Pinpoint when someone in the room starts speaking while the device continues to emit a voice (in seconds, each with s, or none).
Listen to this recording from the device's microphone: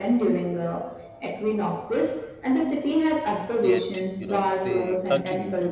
3.6 s